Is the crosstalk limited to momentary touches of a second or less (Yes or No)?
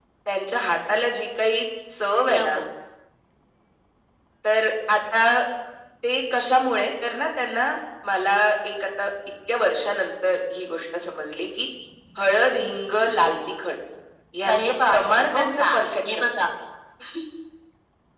No